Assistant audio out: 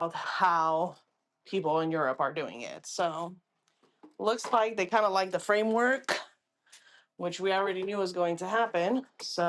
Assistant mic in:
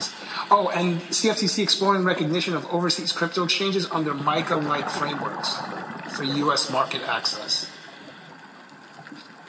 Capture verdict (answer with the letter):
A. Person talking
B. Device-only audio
A